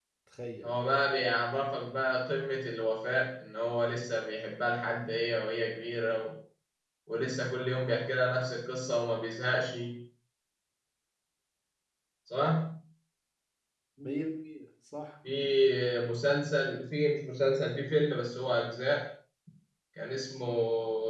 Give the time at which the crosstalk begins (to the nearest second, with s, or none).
none